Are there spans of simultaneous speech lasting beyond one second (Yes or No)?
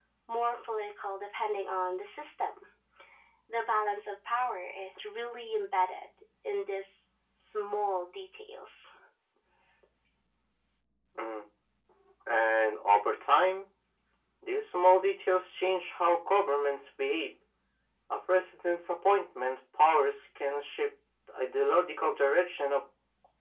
No